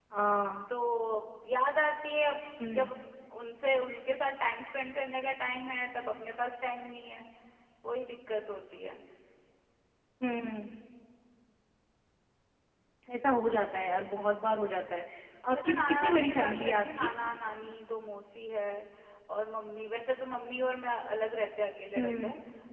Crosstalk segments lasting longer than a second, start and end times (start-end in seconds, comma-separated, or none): 15.5-17.1